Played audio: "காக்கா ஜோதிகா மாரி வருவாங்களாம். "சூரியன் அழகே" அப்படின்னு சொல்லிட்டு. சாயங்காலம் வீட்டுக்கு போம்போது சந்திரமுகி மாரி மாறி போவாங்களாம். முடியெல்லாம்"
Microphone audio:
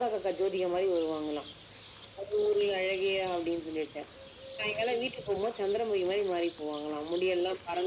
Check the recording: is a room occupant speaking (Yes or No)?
No